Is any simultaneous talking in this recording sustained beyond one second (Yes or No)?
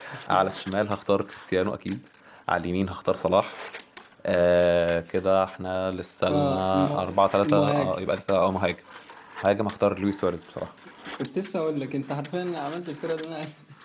Yes